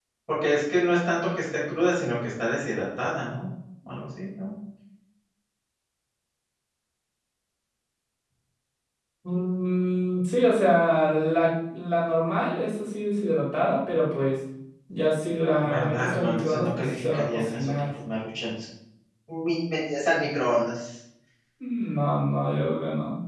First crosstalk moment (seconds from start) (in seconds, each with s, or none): 15.6 s